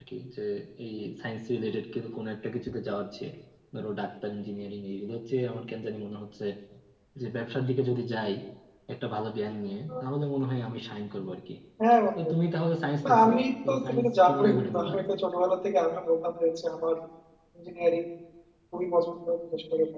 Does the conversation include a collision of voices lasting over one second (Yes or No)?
Yes